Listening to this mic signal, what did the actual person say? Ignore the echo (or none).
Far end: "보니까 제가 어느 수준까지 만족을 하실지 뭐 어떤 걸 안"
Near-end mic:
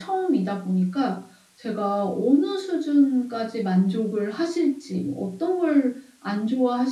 none